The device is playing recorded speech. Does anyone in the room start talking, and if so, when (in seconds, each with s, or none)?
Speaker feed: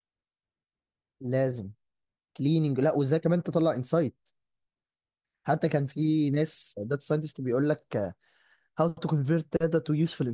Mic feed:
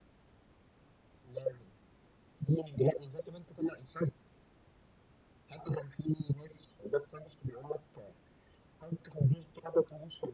none